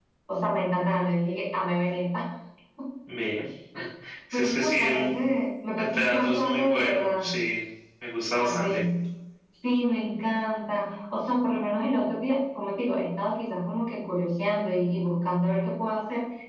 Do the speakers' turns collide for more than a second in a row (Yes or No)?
Yes